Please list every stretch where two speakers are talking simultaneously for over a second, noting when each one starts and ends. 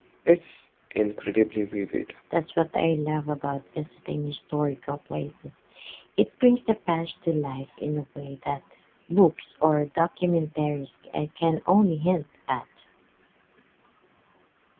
none

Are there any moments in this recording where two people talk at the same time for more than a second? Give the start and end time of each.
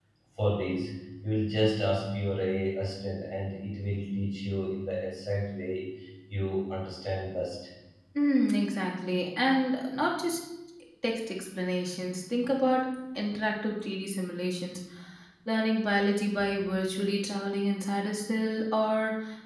none

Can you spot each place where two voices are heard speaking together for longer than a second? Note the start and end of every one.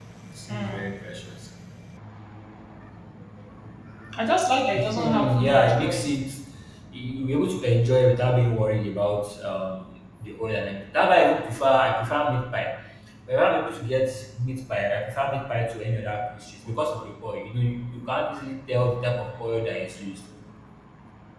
4.7-6.1

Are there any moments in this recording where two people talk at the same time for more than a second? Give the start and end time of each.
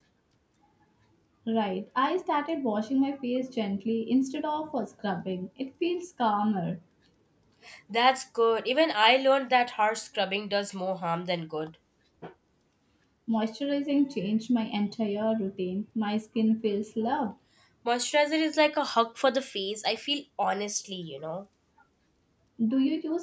none

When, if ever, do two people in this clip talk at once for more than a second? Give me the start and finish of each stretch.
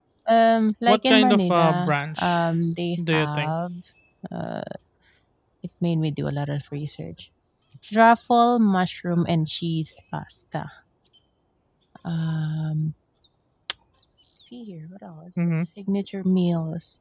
0.9-2.4

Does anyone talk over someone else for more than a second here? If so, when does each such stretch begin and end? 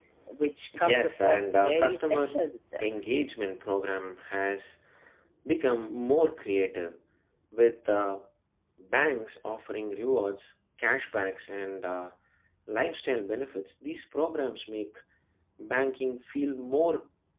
0.7-2.2

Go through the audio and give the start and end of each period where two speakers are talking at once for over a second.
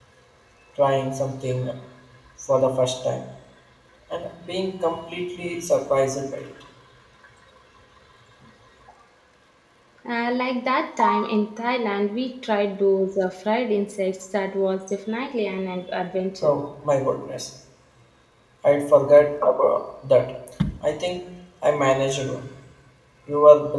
none

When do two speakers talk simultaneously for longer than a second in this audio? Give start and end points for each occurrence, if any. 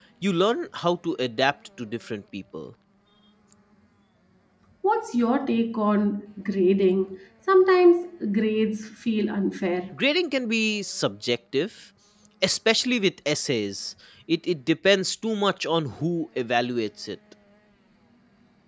none

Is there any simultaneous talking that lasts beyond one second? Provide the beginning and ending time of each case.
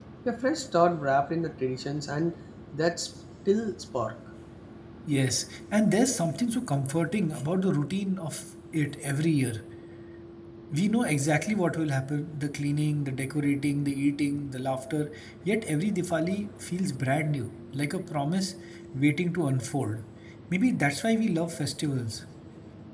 none

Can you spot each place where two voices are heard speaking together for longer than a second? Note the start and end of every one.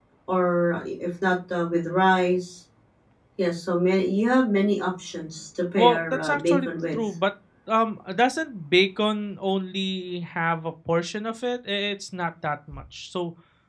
5.8-7.1

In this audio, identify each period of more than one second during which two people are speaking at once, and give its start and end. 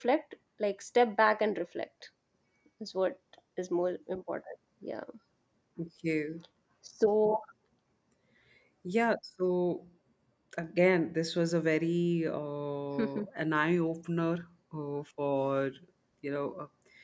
none

